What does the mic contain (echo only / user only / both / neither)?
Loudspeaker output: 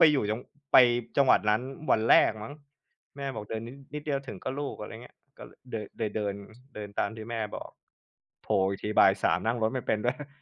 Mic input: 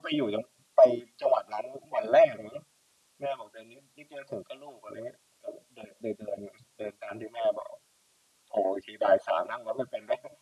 echo only